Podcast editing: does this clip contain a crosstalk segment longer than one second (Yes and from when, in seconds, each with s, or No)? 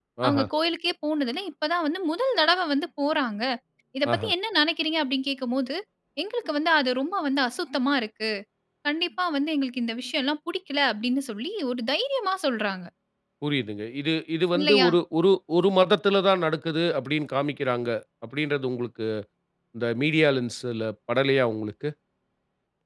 No